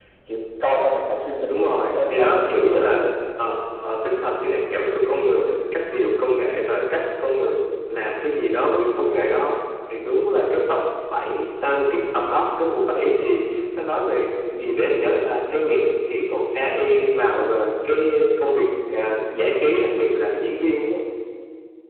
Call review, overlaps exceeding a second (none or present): present